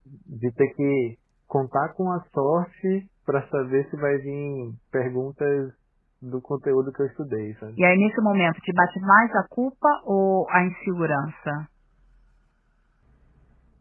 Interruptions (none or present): none